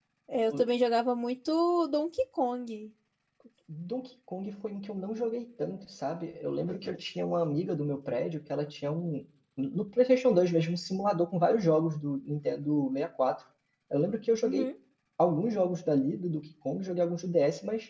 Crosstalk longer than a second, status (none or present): none